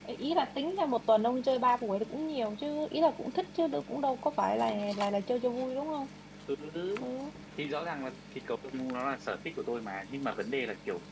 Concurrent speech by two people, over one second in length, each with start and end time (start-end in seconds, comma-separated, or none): none